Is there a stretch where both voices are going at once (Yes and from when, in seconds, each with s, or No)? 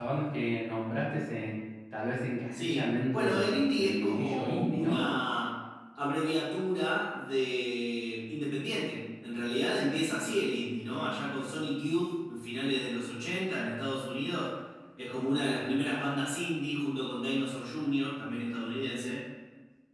Yes, from 2.5 s